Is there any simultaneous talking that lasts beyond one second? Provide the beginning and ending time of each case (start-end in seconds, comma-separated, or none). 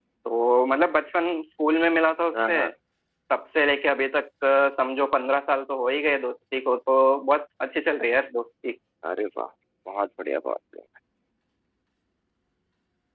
none